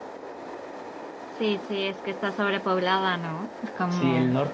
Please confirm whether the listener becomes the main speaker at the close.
Yes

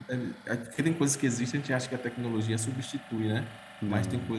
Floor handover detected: No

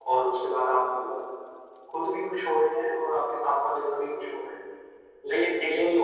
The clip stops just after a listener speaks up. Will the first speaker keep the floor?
No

